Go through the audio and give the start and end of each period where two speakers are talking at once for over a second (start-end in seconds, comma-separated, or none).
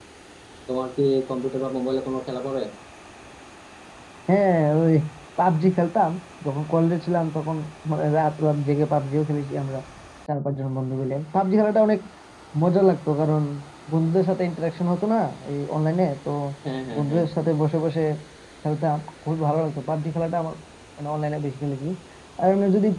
none